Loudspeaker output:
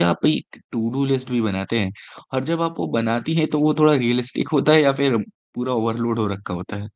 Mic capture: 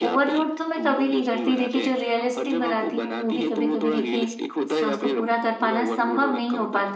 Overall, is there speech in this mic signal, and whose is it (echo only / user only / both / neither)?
both